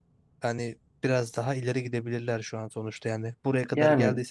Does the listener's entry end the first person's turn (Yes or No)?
No